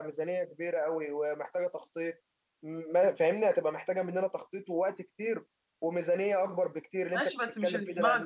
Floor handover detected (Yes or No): Yes